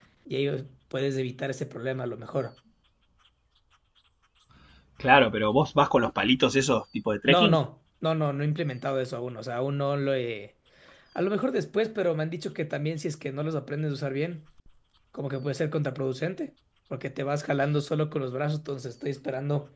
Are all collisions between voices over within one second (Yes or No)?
Yes